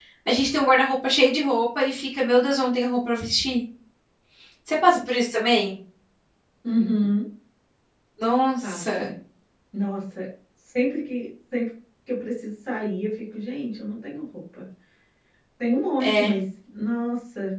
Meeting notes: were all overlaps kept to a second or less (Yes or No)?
Yes